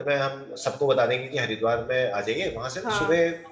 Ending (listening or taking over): listening